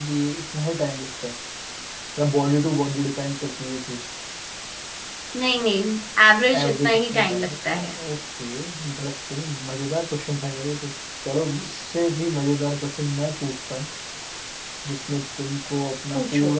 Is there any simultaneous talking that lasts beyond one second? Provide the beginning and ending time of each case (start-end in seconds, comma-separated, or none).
6.6-7.9